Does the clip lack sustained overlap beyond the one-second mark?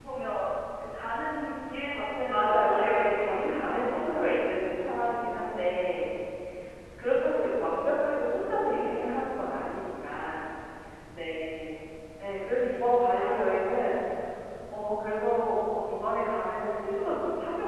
No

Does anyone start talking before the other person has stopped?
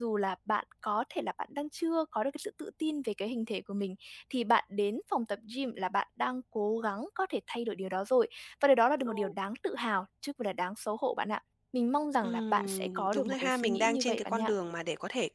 Yes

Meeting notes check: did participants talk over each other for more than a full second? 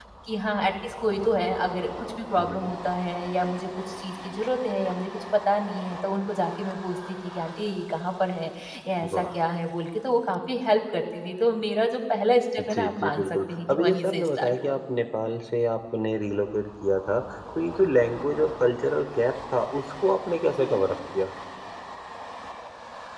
Yes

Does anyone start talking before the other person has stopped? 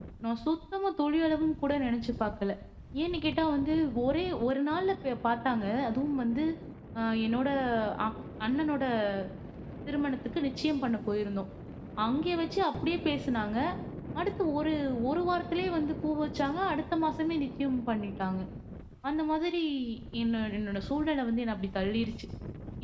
No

